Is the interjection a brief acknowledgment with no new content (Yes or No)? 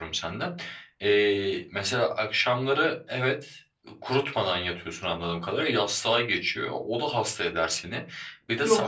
Yes